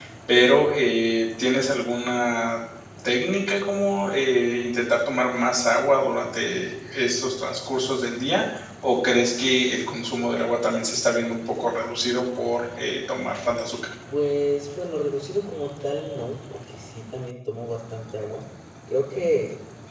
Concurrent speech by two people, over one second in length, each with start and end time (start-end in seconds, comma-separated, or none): none